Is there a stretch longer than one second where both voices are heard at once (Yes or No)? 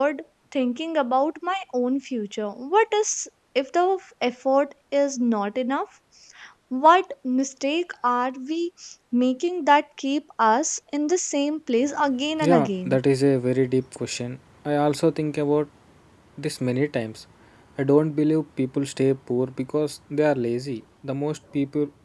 No